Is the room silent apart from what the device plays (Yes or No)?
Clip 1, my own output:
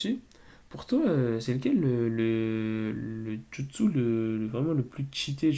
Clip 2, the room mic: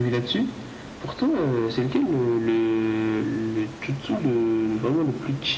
Yes